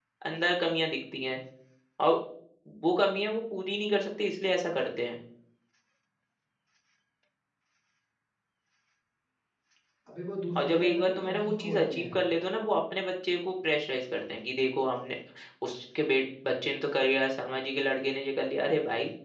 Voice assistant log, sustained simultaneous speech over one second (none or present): present